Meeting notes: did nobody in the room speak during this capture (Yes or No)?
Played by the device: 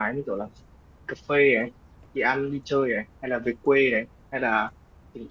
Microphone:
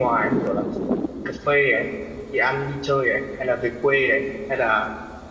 Yes